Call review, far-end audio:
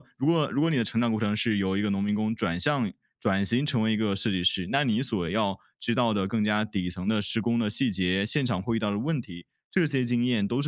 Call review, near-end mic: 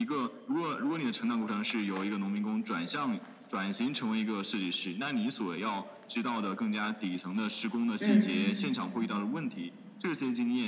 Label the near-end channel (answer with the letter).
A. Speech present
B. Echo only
A